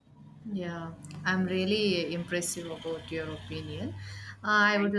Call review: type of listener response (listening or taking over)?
listening